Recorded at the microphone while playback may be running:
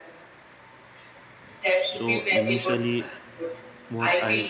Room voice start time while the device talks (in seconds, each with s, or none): 1.7 s